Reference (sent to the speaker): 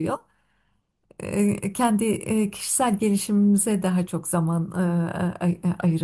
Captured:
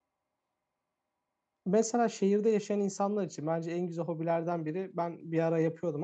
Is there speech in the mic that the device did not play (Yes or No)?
Yes